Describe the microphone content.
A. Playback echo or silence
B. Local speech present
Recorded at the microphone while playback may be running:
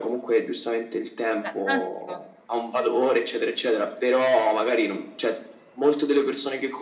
B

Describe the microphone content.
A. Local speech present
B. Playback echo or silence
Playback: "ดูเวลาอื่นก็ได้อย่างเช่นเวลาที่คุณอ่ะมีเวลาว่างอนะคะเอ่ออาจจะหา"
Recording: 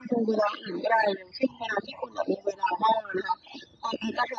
B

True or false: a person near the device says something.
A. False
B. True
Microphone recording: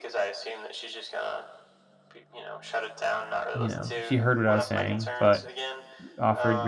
B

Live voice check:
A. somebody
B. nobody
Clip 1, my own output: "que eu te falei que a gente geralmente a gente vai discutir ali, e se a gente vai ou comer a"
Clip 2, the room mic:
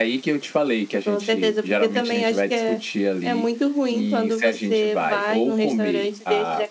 A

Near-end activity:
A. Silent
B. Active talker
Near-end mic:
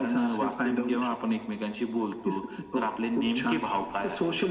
A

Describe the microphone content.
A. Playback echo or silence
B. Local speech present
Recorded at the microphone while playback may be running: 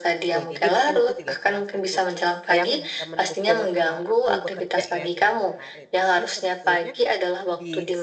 B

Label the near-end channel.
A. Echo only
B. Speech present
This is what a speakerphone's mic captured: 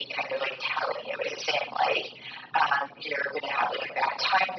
A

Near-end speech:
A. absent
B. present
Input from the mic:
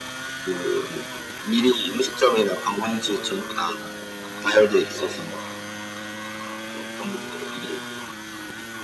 A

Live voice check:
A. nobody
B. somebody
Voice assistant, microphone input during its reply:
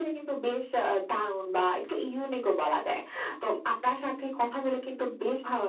A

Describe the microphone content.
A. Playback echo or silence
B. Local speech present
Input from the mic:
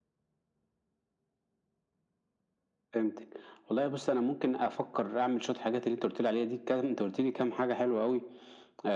A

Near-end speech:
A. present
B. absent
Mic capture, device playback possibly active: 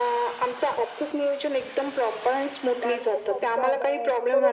A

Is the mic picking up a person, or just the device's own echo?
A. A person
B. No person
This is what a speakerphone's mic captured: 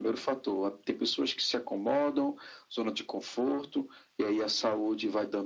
B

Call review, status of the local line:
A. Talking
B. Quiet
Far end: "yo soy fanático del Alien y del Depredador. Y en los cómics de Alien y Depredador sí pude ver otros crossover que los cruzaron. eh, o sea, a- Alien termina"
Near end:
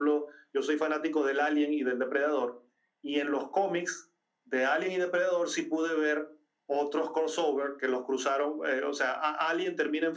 B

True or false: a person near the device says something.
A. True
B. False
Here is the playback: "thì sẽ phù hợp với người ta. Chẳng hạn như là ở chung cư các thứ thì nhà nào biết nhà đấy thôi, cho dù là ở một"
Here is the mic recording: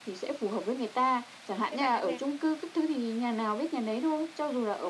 A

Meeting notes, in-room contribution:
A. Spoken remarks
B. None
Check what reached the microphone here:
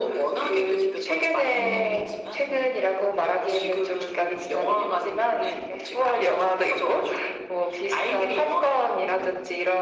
A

